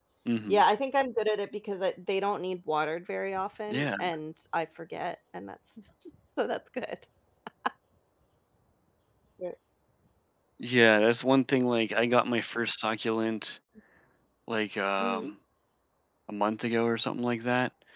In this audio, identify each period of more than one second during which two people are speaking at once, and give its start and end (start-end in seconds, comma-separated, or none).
none